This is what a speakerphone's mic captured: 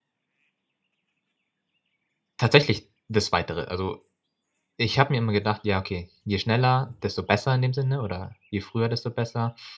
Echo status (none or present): none